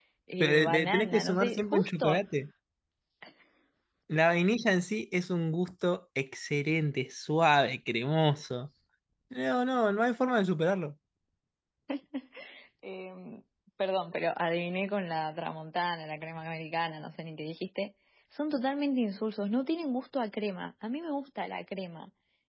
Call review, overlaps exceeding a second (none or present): present